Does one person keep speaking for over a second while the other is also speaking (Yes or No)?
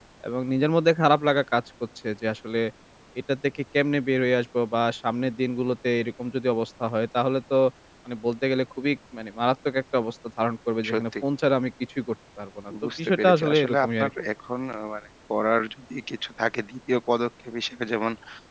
Yes